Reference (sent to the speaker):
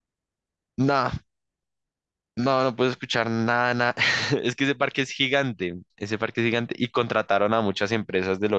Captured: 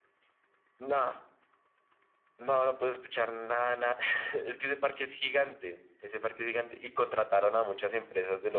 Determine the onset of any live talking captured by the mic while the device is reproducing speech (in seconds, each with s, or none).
none